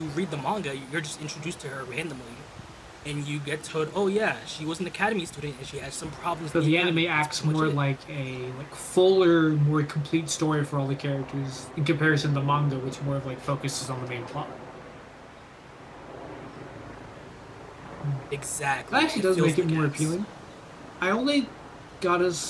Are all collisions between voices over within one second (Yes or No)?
No